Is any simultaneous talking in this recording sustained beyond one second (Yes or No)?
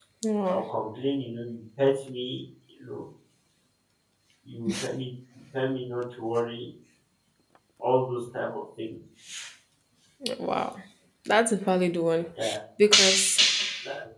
No